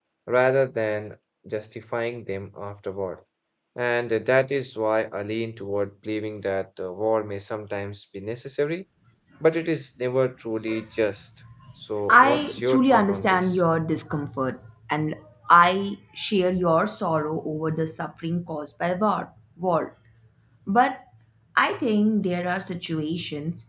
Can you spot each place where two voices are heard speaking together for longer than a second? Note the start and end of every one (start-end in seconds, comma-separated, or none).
12.1-13.6